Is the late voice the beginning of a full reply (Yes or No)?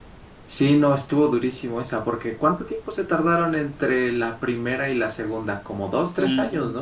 Yes